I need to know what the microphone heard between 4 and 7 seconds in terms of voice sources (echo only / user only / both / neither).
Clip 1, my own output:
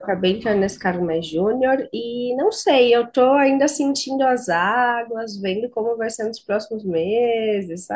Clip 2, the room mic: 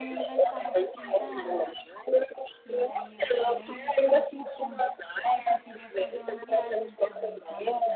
both